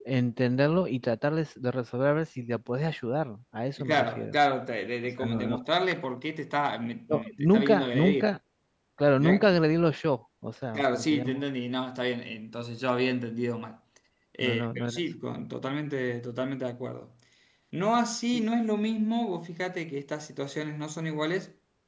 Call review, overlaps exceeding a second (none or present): present